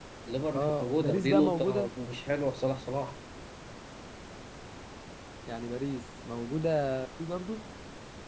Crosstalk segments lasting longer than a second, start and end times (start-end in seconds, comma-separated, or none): 0.6-1.9